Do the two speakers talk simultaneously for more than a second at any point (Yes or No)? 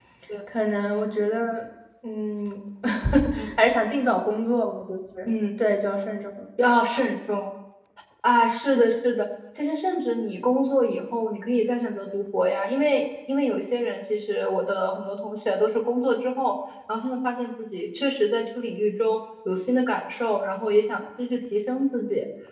No